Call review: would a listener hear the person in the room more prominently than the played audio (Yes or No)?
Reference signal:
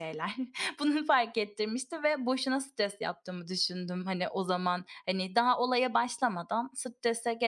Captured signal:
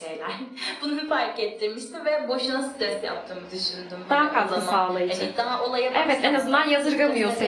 Yes